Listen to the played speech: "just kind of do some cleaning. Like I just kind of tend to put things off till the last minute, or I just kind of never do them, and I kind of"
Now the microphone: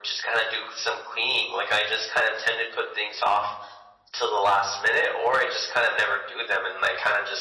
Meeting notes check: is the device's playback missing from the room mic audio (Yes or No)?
No